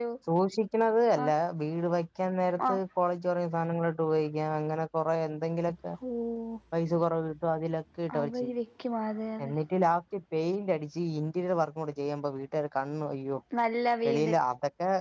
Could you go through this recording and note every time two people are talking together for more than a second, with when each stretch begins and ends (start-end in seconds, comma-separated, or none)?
none